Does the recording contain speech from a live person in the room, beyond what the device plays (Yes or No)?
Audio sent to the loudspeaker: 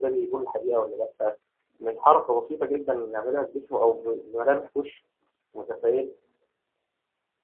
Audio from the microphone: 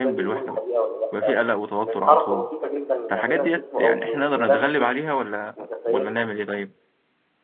Yes